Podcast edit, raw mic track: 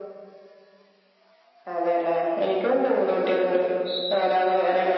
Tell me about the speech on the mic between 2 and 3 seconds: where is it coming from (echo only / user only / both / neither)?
echo only